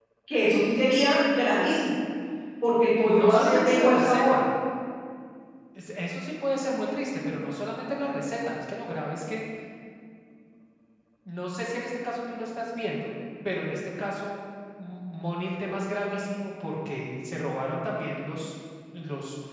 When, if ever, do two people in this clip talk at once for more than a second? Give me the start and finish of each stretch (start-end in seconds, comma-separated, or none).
3.1-4.3